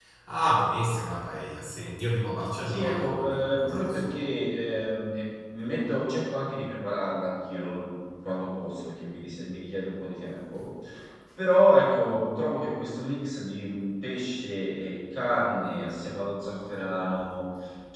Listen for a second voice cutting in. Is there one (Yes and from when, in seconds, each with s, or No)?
Yes, from 2.6 s